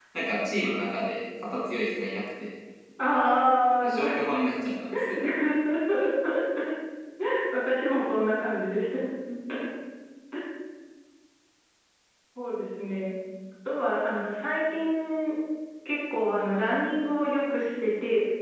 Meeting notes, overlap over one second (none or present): none